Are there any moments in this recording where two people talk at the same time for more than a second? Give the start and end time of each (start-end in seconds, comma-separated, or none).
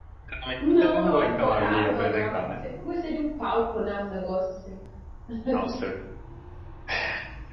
0.6-2.4